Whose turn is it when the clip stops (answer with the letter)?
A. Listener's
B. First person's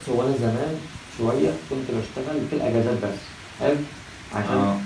B